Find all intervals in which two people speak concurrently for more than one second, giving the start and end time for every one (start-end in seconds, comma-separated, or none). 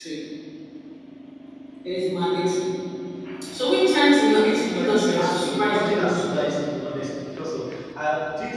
4.6-6.2